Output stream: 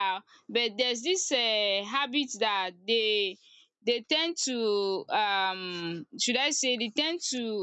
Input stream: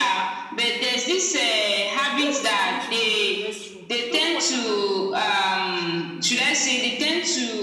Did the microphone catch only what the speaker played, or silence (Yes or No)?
No